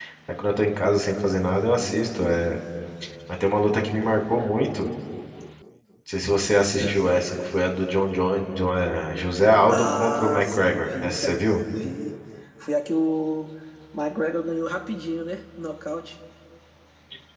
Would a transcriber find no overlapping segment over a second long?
No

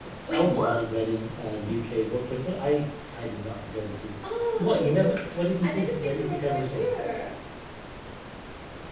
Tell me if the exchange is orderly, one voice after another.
No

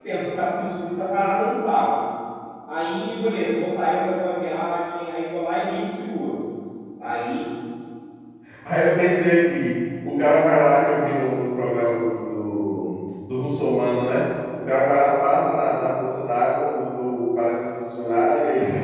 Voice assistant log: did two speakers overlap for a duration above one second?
No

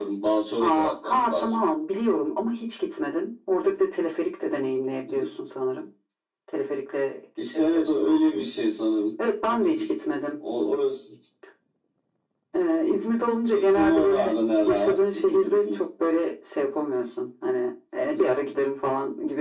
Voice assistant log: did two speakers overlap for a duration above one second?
Yes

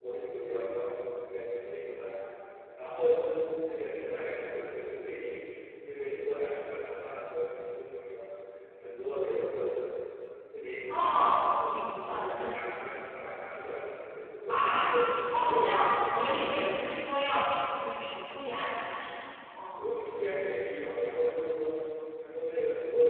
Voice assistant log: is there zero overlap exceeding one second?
No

